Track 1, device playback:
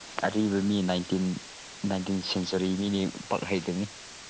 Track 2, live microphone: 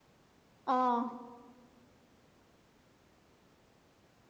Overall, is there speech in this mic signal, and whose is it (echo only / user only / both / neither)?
user only